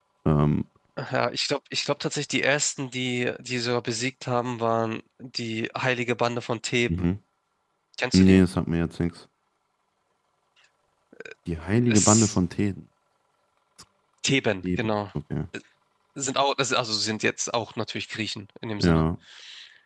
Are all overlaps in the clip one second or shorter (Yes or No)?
Yes